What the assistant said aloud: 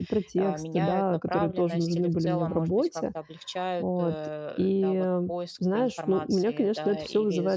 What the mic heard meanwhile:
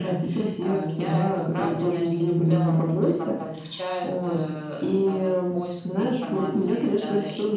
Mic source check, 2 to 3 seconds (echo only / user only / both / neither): echo only